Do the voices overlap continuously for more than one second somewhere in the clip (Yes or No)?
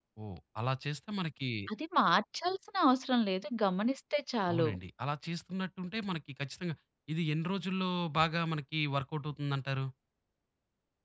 No